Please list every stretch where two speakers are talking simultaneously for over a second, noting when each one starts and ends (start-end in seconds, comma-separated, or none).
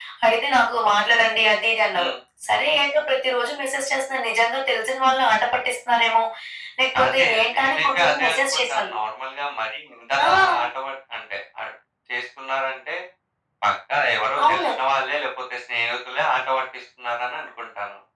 7.0-9.0